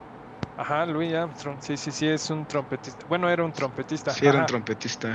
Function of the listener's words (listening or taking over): taking over